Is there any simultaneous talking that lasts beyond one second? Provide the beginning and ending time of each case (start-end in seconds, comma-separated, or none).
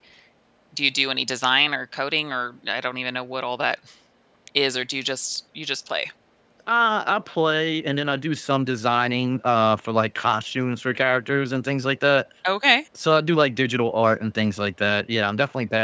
none